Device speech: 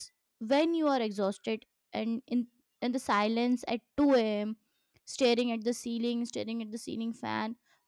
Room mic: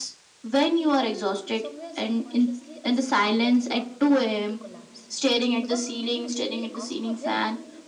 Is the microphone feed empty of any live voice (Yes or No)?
No